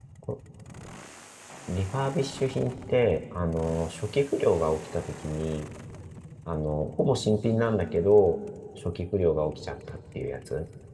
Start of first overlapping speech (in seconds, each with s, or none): none